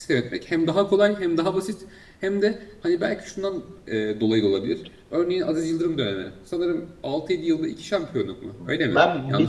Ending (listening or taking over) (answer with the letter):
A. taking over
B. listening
A